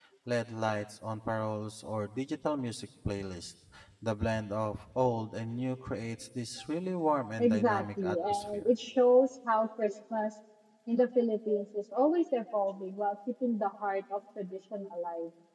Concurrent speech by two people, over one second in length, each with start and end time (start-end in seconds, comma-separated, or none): 7.4-8.7